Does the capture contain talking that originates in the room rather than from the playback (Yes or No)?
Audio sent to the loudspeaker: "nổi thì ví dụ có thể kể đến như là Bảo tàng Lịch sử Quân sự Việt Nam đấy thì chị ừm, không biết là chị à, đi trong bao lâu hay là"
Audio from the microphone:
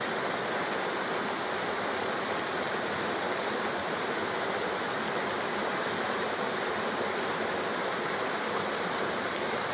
No